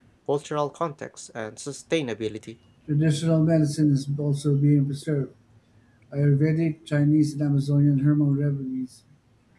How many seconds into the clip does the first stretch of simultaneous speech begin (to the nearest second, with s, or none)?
none